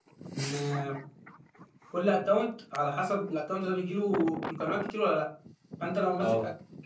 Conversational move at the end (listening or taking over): listening